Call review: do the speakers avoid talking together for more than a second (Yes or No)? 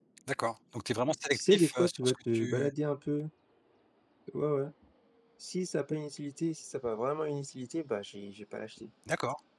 No